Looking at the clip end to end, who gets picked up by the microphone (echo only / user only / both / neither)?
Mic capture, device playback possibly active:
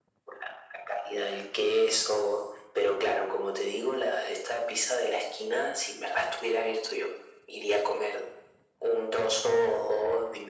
echo only